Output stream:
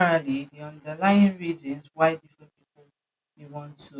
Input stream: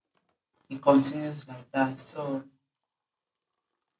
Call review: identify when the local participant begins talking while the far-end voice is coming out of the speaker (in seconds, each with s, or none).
0.7 s